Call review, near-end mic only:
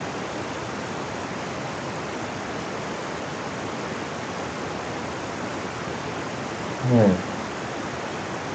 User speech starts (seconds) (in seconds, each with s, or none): 6.8 s